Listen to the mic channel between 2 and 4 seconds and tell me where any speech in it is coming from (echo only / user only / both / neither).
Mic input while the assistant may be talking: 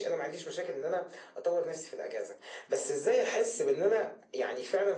echo only